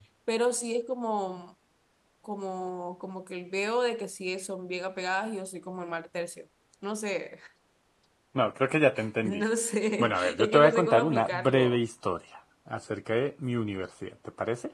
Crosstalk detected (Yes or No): Yes